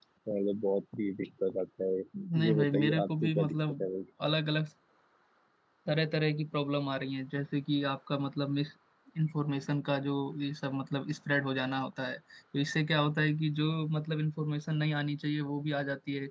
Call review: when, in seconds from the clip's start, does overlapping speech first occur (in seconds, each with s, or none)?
2.5 s